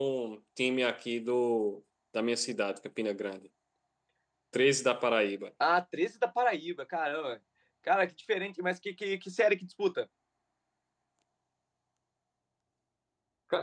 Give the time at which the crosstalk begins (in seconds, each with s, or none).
none